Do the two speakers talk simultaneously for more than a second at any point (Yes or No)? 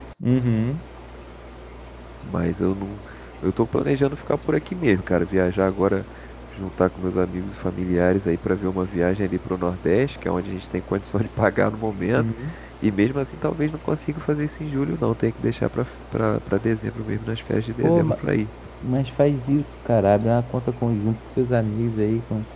No